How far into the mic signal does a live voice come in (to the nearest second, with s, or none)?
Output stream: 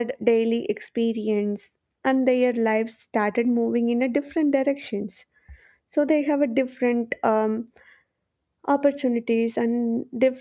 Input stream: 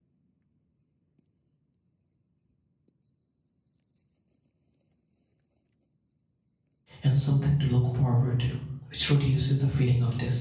7 s